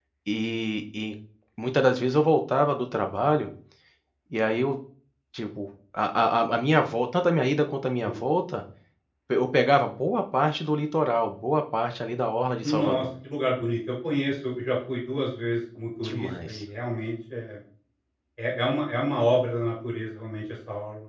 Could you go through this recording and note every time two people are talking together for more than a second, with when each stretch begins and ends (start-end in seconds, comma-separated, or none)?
none